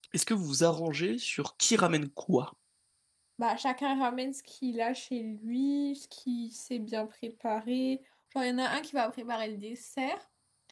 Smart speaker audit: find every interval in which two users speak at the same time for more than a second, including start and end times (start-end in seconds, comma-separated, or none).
none